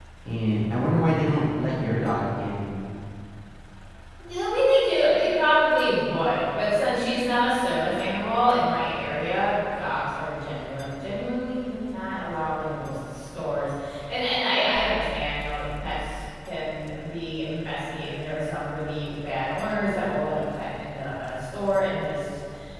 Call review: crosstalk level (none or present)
none